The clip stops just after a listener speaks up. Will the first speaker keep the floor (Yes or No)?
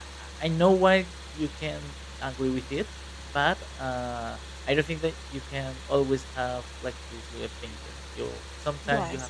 Yes